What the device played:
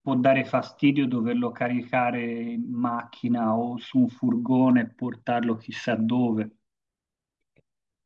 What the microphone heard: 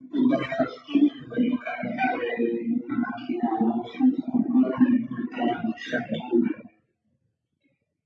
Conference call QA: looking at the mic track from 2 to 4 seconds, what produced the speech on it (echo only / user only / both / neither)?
echo only